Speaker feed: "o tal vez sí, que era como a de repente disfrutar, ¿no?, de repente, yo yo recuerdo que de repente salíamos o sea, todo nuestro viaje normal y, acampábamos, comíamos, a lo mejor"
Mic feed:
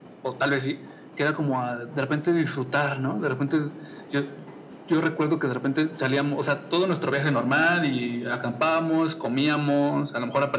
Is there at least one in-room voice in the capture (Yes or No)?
No